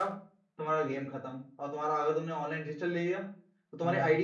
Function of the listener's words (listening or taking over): listening